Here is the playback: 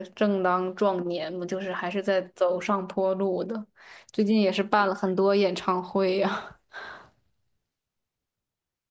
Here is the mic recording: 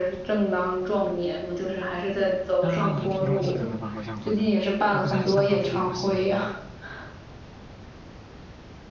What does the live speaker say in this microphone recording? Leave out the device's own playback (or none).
他也挺有钱的吧，好像混的，他不是还上了福布斯吗？